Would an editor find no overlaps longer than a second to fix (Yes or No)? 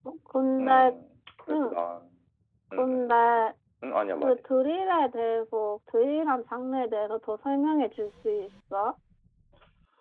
Yes